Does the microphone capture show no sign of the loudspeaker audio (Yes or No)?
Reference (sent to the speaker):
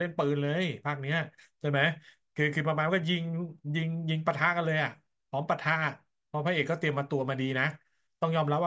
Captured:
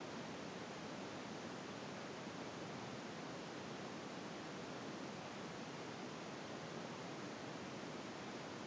Yes